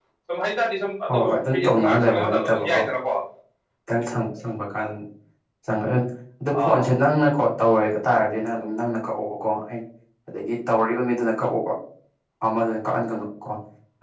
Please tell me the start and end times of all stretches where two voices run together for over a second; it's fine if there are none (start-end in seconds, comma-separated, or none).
1.1-2.8